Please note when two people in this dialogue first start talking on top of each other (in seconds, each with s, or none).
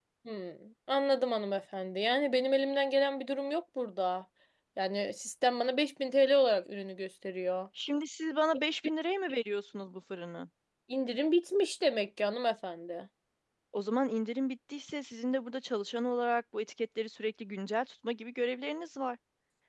none